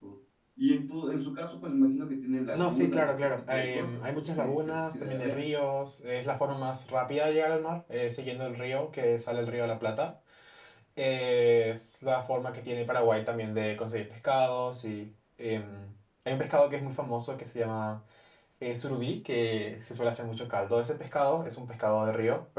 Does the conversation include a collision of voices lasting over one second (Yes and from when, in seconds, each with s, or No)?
Yes, from 2.5 s